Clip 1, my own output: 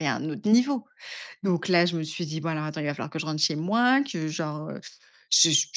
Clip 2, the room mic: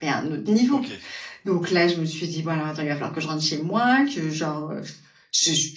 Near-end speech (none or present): present